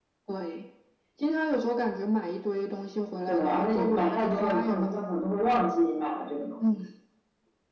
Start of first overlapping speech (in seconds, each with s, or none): 3.2 s